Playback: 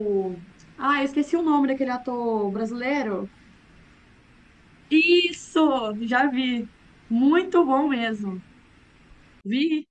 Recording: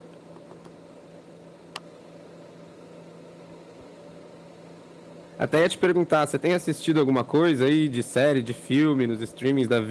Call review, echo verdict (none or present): none